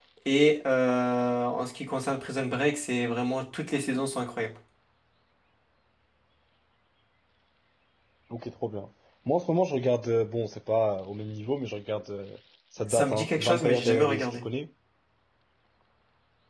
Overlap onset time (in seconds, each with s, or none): 12.9 s